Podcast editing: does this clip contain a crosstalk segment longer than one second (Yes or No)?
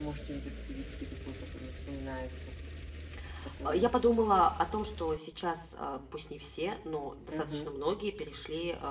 No